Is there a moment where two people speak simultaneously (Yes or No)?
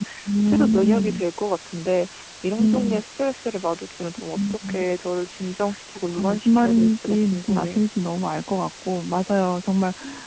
Yes